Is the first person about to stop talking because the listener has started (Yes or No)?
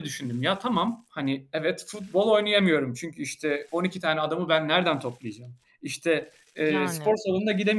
No